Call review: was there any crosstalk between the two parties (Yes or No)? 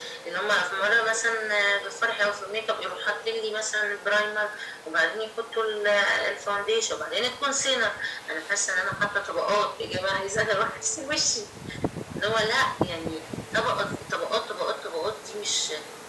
No